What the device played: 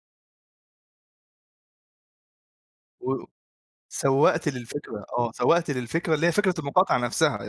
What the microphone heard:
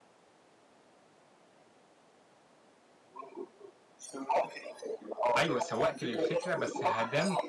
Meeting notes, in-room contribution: present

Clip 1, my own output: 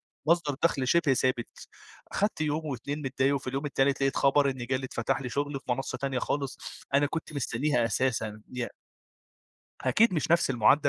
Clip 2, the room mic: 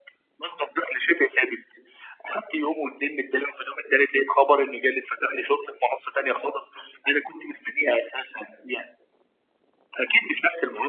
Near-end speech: none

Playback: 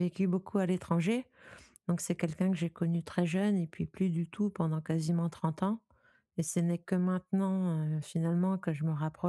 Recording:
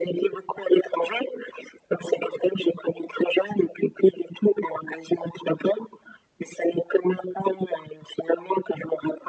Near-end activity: none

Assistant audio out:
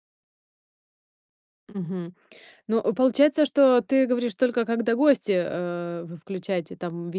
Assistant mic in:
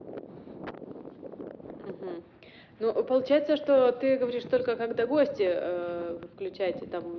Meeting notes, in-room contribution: none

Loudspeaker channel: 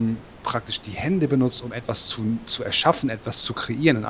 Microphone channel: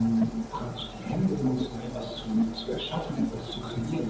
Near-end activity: none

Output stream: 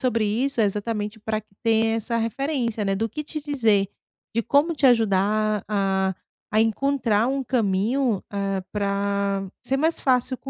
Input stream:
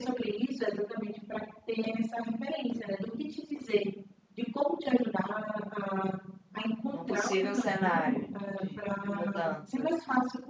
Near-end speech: present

